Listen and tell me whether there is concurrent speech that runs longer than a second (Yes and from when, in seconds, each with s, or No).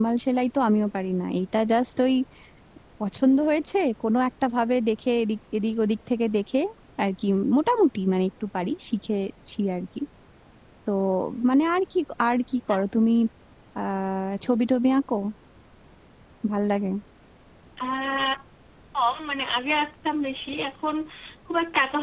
No